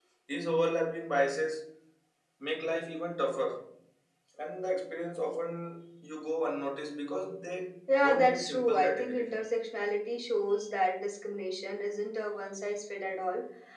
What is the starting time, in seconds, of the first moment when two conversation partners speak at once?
7.9 s

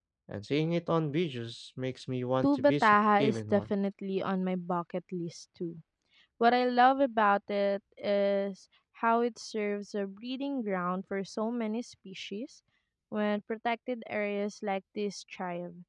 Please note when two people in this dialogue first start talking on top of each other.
2.4 s

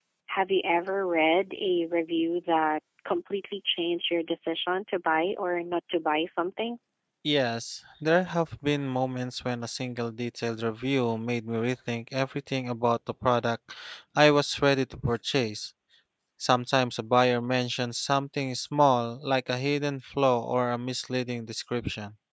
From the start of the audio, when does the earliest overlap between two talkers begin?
none

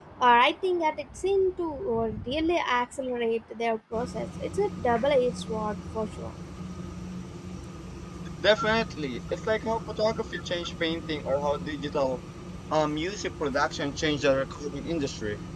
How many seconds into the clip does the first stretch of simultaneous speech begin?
none

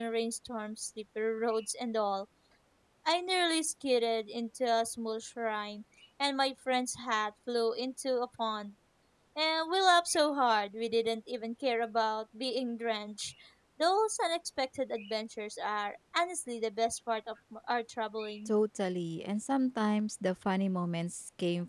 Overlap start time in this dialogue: none

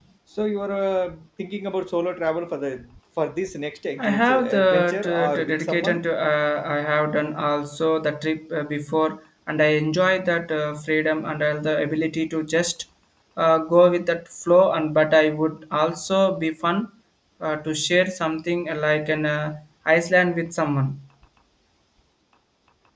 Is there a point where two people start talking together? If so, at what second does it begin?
4.0 s

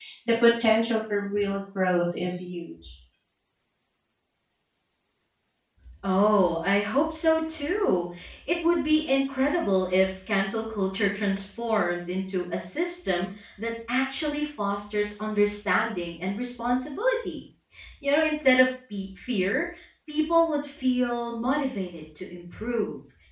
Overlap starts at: none

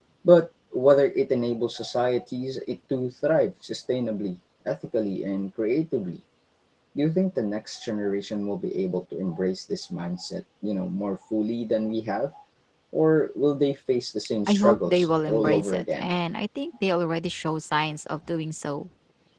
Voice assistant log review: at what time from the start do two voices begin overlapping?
14.5 s

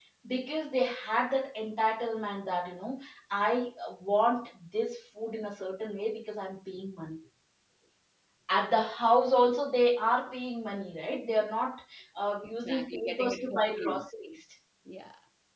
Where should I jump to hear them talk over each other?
12.4 s

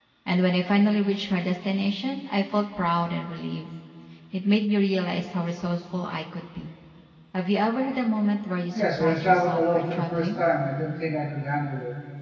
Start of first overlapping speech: 8.7 s

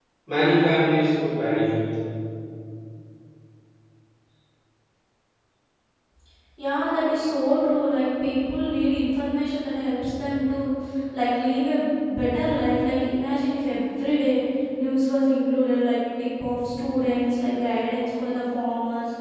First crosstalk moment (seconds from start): none

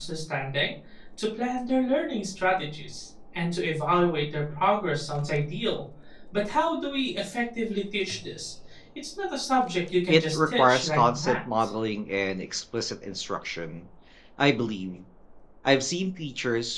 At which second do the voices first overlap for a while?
10.1 s

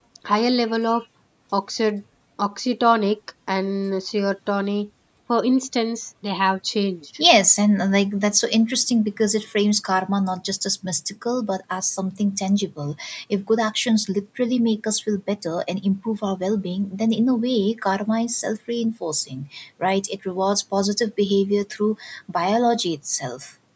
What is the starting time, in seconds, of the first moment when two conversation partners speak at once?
none

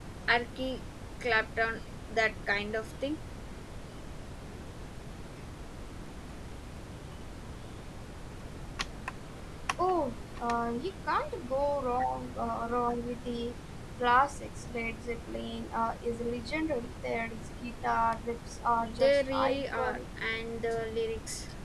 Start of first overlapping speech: 18.8 s

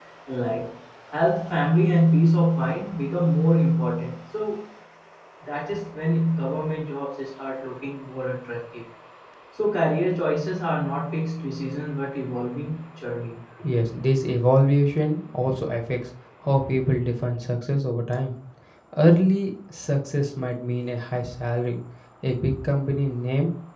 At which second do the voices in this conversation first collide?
none

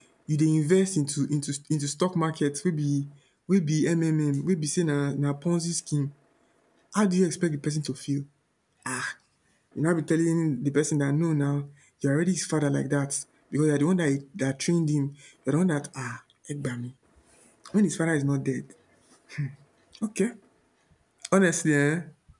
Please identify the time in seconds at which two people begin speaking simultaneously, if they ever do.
none

